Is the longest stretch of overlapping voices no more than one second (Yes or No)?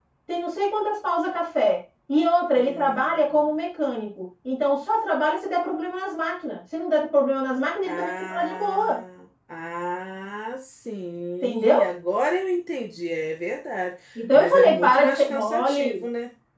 No